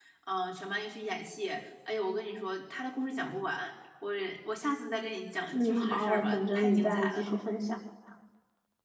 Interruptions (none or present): present